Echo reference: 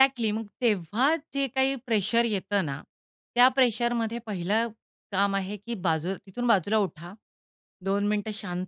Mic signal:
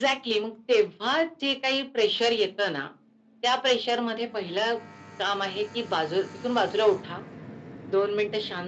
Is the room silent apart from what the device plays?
Yes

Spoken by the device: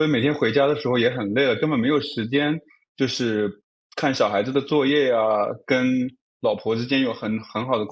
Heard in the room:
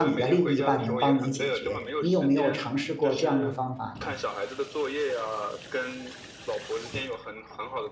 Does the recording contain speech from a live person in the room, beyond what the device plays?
Yes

